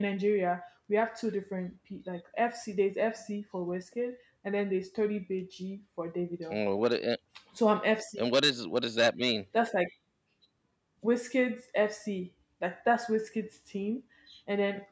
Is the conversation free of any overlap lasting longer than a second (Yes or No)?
Yes